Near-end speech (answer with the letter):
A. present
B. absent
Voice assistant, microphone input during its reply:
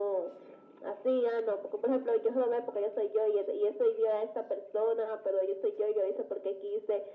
B